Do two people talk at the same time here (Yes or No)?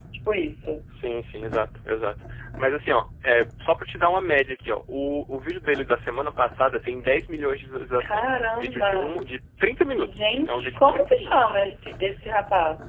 Yes